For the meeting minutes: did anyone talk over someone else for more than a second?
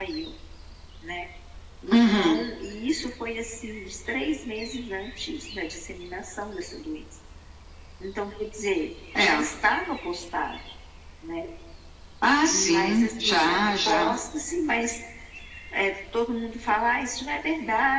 Yes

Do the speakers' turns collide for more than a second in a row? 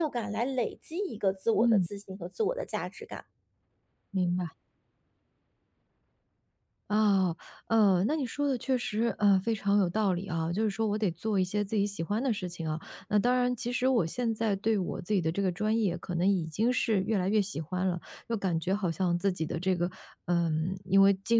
No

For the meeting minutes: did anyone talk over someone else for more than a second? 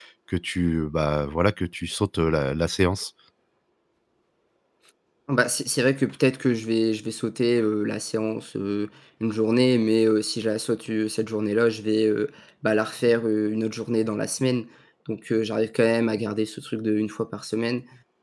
No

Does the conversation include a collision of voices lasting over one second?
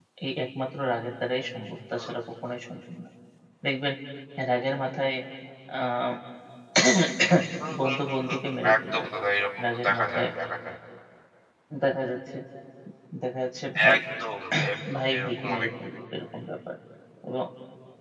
Yes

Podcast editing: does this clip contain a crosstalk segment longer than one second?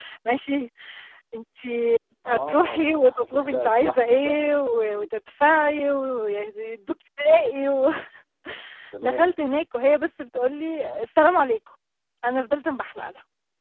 Yes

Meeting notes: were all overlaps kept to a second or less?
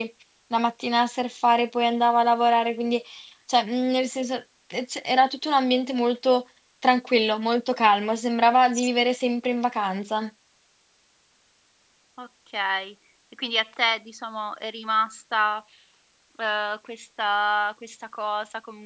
Yes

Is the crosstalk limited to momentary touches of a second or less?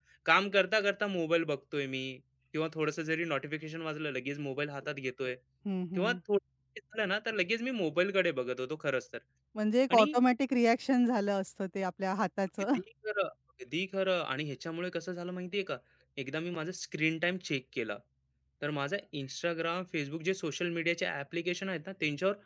Yes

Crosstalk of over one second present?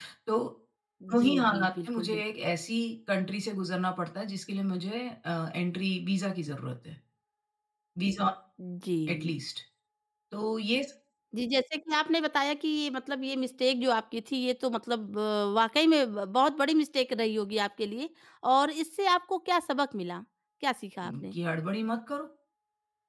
Yes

